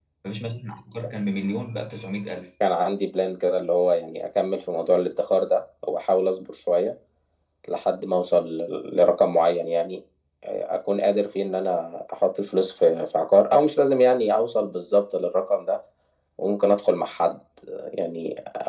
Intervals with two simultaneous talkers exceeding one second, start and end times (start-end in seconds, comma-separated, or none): none